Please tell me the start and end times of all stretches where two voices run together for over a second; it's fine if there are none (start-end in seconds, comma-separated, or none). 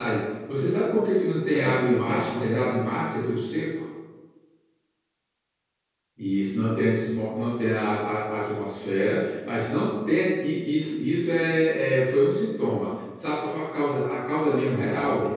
1.5-2.8